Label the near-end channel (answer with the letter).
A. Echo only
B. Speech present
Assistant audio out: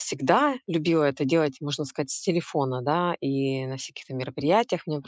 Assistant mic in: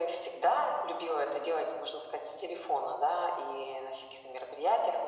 A